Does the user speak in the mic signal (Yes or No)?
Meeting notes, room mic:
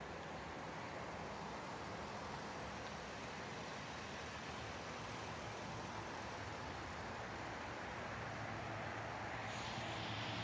No